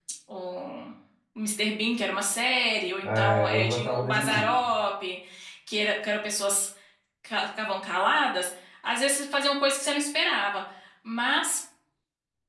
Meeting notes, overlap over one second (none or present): present